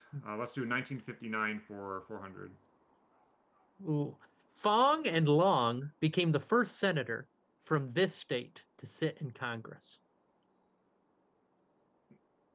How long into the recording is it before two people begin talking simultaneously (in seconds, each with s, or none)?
none